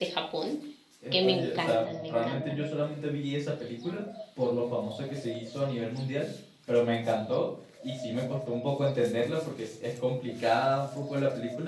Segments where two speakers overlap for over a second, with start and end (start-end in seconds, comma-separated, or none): 1.1-2.6